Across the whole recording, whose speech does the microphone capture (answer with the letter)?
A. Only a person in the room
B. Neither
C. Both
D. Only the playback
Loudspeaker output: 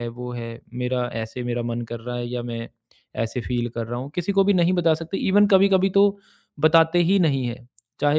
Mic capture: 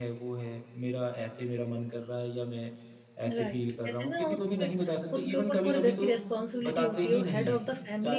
C